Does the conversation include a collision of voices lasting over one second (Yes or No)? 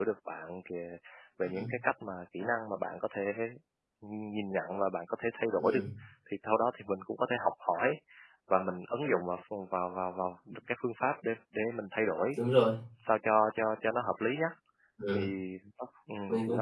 No